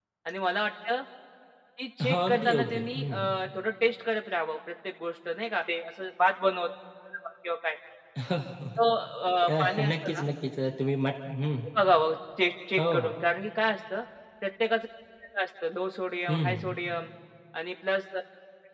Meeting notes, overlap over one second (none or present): present